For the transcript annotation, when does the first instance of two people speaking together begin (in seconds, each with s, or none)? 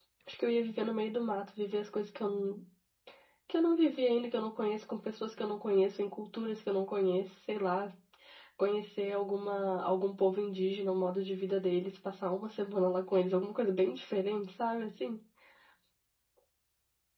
none